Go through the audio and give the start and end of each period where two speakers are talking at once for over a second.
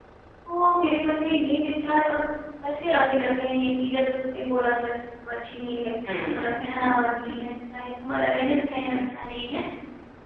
6.2-7.5

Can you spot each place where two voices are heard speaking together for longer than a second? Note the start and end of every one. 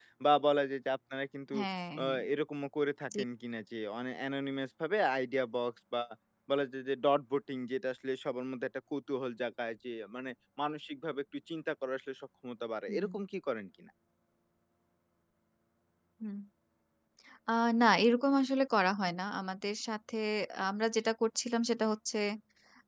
none

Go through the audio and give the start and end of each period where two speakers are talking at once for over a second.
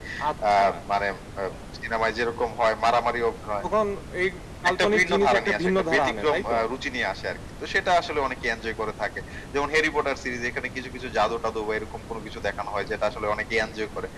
4.7-6.6

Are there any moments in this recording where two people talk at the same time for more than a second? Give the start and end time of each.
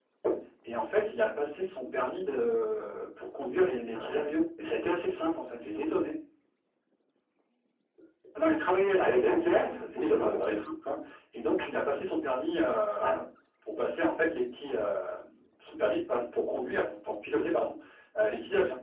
none

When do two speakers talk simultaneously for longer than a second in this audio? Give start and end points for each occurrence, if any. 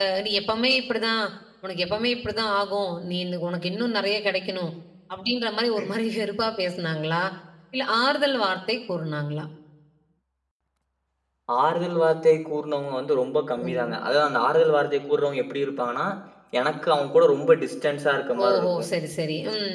none

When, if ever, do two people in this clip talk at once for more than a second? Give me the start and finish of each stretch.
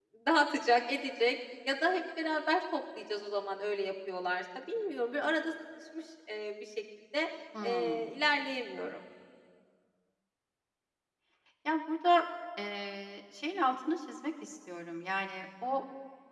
none

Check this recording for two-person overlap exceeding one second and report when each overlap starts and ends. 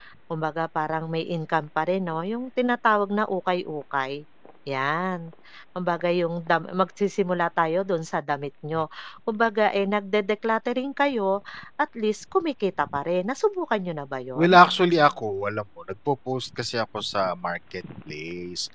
none

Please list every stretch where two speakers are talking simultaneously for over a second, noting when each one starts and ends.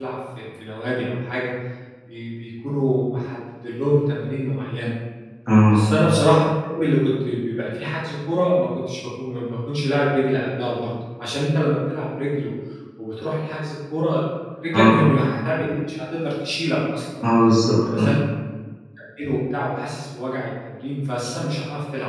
none

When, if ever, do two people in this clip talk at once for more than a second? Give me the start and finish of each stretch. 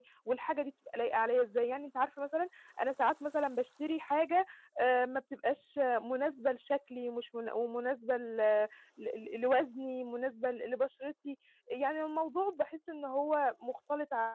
none

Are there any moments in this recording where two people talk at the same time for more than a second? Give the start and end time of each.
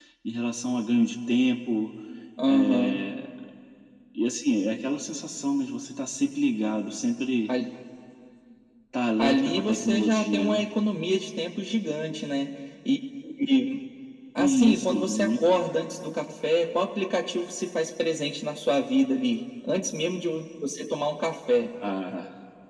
9.2-10.7, 14.4-15.6

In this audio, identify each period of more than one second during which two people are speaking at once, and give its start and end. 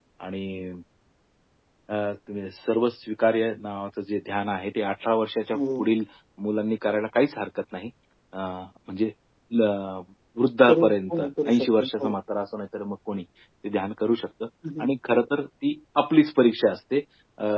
10.6-12.2

